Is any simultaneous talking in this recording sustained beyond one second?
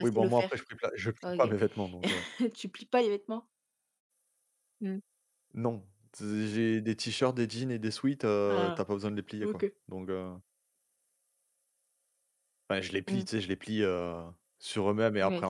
No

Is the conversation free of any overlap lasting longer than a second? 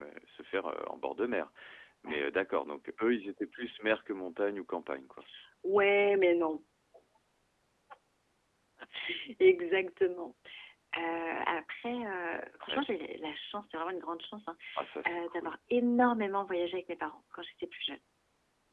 Yes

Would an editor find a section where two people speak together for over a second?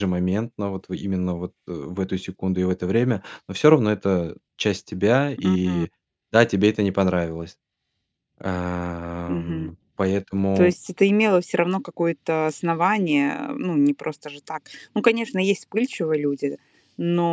No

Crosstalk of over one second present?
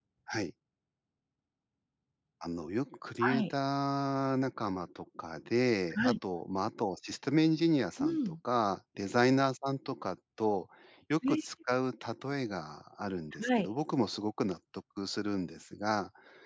No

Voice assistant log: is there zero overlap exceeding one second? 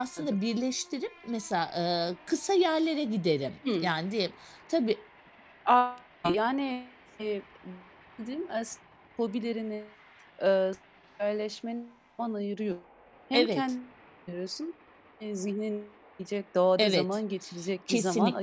Yes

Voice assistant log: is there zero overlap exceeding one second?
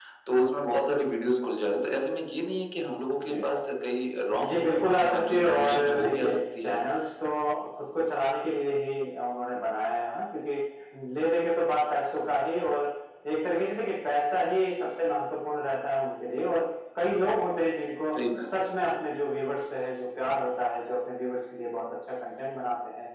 No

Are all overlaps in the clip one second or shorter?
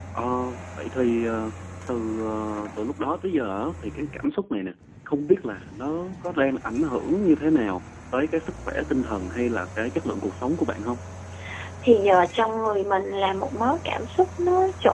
Yes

